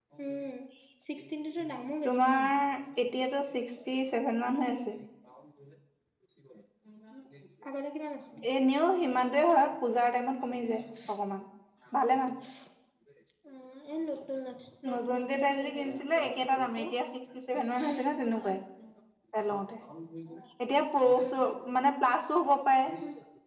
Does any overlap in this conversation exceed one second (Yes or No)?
Yes